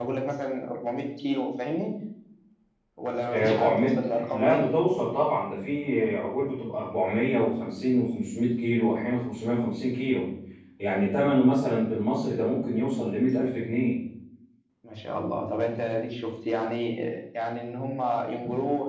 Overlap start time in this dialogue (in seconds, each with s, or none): 3.3 s